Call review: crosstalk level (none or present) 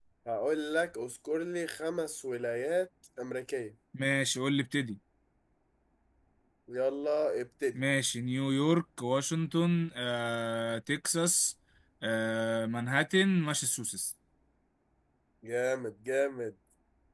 none